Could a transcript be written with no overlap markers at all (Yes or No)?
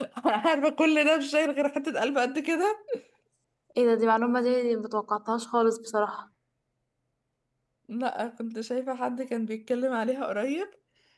Yes